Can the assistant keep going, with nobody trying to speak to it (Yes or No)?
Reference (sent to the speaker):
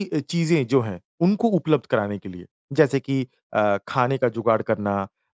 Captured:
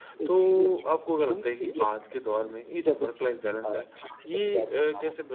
No